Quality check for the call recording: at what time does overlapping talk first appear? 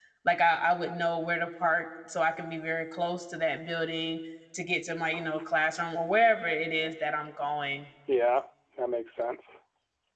none

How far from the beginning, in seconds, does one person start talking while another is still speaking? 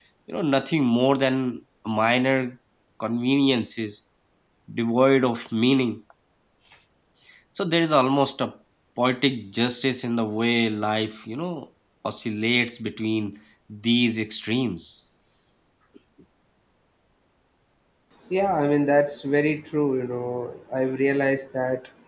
none

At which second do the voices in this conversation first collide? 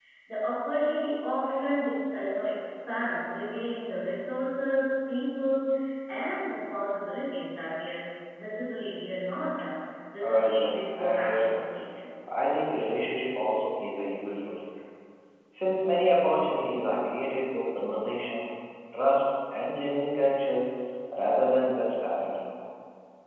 10.2 s

